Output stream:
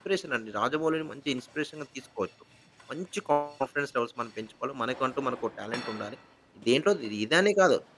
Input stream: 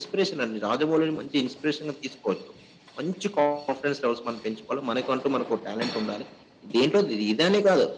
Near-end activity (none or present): none